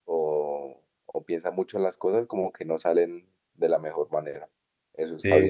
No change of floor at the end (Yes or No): No